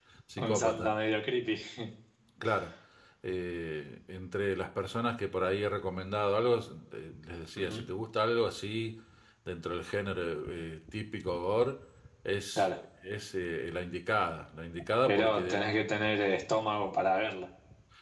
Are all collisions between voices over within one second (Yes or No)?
Yes